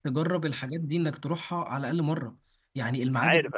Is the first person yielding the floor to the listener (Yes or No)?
No